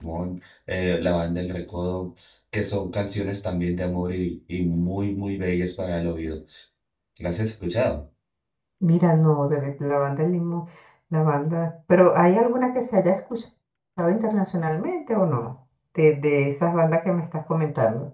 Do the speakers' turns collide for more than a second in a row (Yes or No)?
No